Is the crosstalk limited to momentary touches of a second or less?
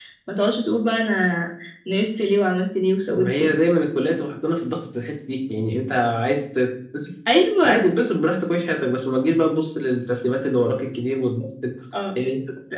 Yes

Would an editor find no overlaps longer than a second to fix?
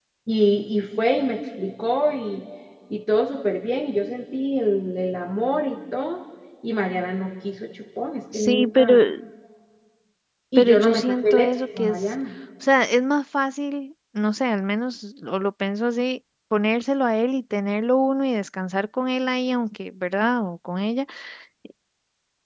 No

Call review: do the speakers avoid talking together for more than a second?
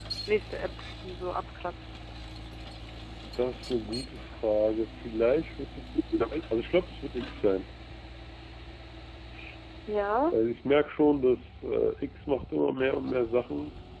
Yes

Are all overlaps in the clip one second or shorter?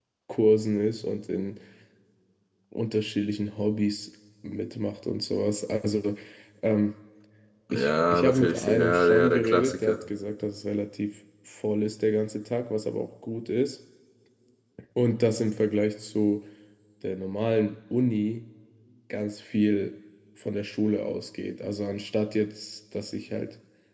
No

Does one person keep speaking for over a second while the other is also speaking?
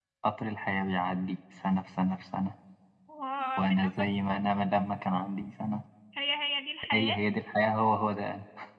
No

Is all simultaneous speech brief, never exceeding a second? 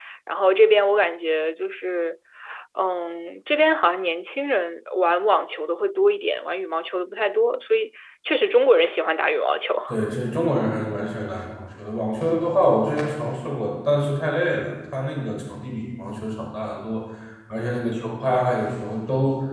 Yes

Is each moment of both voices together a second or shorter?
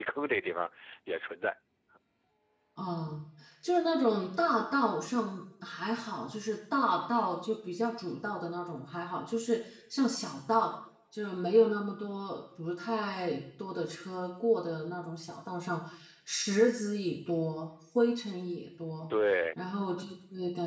Yes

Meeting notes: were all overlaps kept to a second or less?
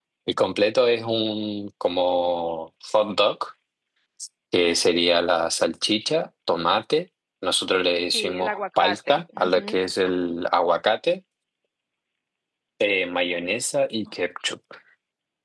No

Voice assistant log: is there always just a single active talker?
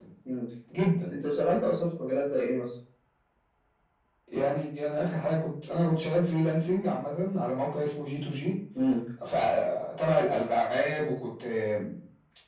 Yes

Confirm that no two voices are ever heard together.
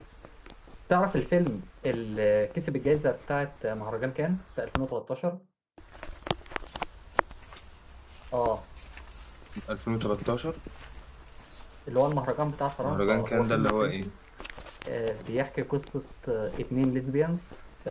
No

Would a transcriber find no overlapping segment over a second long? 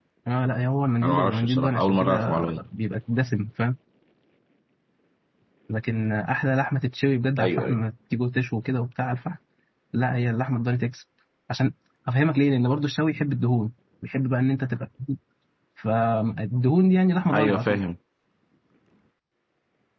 No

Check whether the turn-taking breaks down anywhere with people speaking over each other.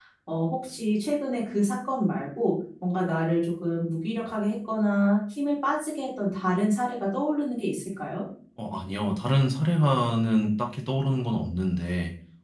No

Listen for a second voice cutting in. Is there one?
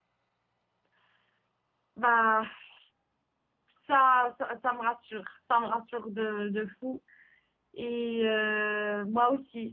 No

